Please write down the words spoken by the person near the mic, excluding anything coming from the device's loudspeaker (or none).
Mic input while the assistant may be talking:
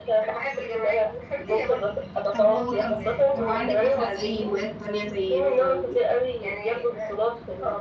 طب و طب طب وعندك مثلا اي هوايات تانية زي مثلا